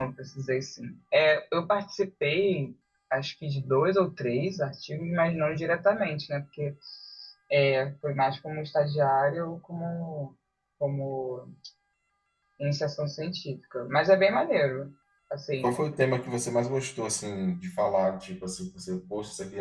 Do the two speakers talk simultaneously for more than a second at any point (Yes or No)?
No